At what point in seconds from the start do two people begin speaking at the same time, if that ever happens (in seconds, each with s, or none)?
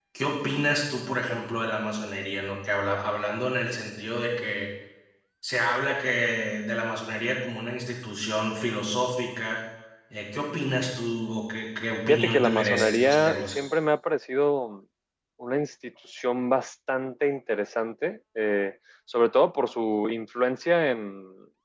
12.1 s